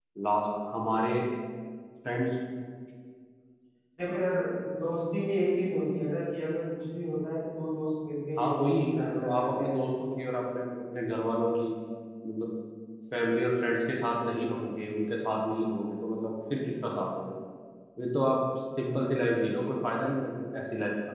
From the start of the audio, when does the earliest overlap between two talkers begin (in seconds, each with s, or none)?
8.4 s